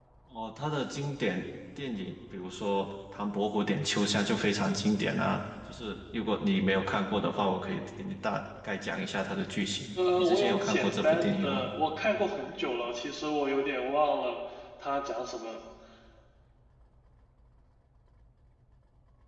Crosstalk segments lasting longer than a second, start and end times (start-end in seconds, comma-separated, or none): 10.0-11.6